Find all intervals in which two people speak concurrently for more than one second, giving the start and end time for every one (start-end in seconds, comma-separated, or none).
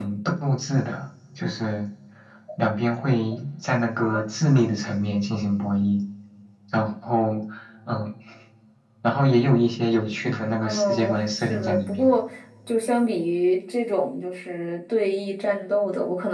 10.6-12.1